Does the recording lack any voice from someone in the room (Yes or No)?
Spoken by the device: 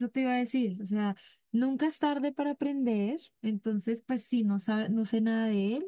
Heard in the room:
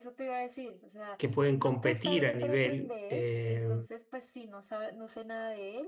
No